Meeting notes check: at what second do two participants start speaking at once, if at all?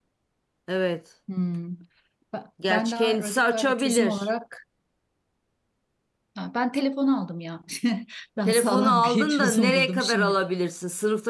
2.7 s

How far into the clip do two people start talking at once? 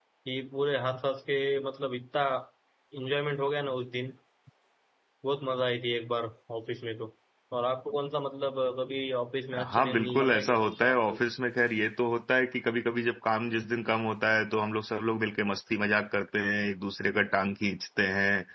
9.5 s

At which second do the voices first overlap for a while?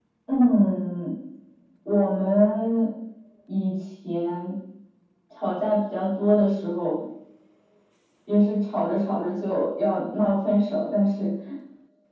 none

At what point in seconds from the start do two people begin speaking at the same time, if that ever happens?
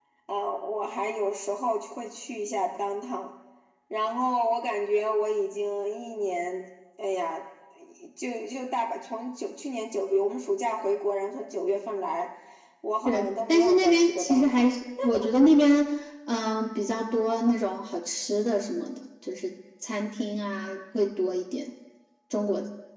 13.0 s

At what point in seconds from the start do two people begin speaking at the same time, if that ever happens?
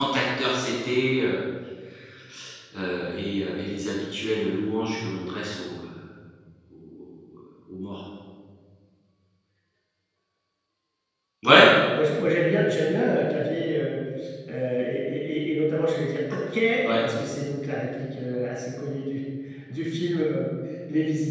none

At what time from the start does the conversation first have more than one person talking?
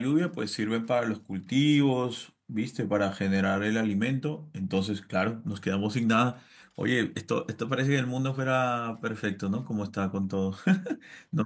none

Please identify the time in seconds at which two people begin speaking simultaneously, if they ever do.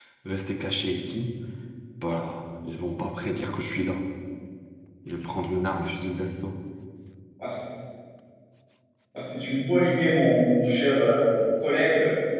none

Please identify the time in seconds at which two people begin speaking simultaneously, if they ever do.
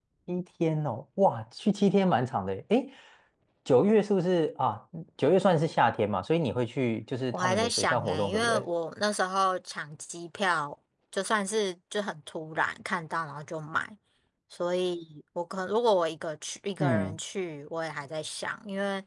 7.3 s

